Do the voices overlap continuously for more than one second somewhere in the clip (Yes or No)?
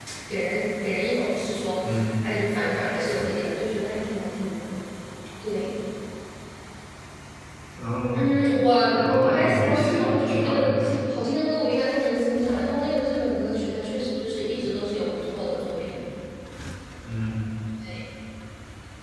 Yes